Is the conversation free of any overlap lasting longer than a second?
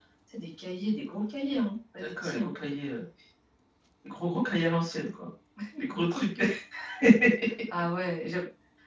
Yes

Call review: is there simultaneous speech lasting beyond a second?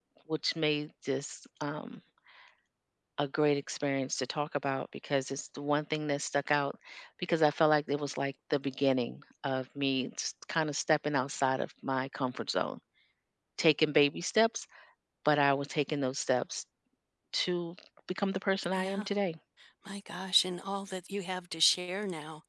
No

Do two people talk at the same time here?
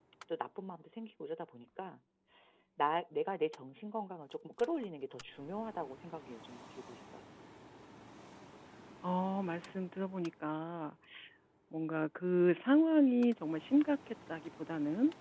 No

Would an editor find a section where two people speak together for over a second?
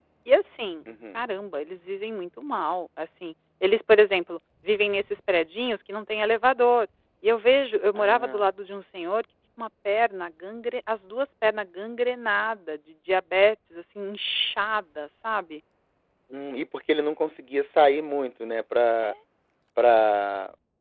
No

